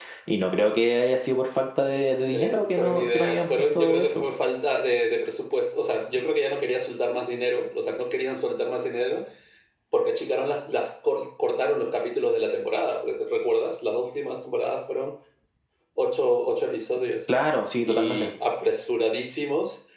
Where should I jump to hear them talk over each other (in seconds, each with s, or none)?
2.2 s